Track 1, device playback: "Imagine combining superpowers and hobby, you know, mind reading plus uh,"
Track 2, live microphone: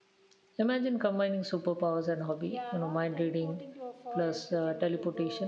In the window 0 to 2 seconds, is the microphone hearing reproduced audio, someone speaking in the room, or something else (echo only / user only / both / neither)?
echo only